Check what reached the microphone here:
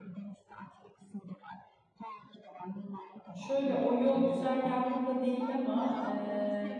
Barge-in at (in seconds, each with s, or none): 3.3 s